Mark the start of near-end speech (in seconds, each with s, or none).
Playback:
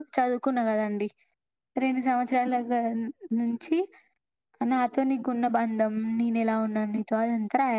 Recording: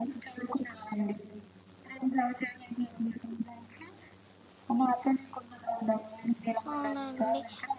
6.7 s